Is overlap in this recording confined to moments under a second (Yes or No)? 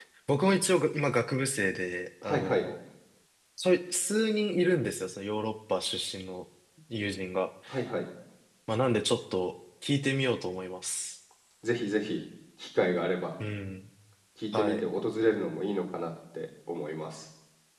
Yes